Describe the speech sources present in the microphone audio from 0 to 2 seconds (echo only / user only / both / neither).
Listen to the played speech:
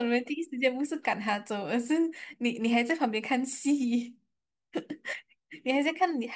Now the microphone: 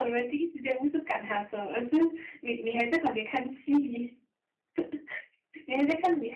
echo only